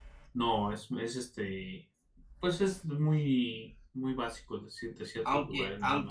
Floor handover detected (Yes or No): Yes